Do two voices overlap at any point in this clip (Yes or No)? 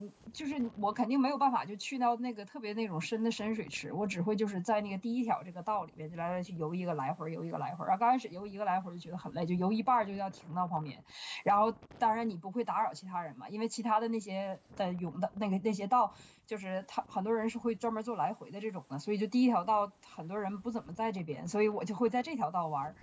No